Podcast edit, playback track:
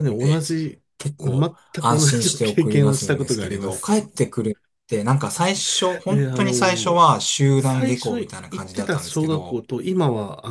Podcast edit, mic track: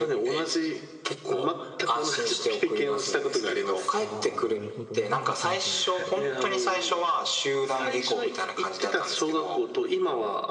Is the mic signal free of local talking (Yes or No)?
No